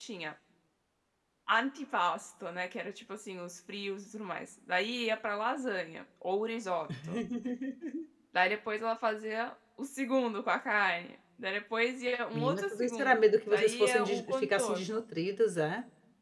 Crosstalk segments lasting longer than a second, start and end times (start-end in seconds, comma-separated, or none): 12.3-14.9